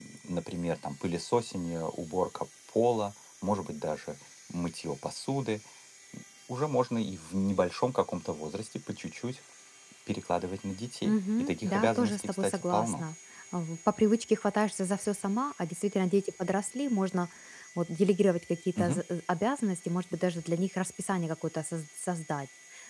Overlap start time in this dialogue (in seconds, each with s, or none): 11.0 s